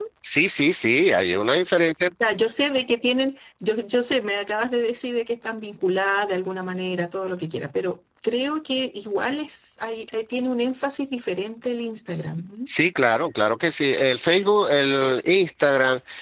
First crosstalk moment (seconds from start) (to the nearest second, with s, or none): none